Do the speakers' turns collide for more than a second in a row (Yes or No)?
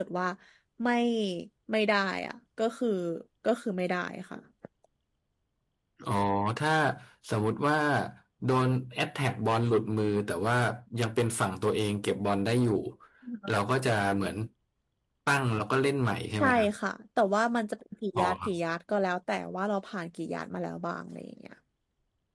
No